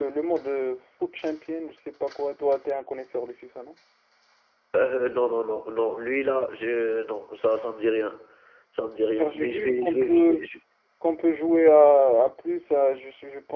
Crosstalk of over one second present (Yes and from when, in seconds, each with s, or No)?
Yes, from 9.2 s